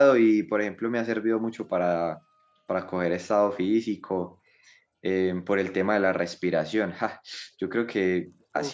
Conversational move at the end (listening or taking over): listening